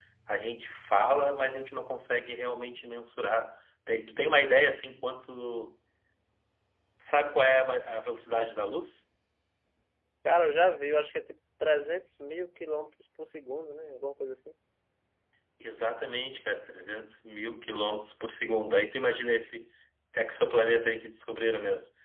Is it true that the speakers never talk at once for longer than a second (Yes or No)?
Yes